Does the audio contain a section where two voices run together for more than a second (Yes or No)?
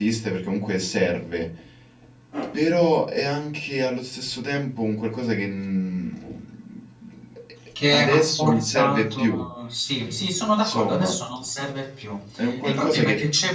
Yes